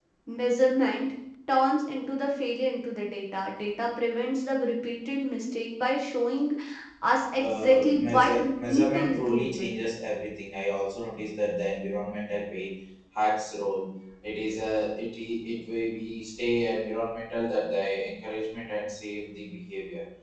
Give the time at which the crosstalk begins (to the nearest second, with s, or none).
7 s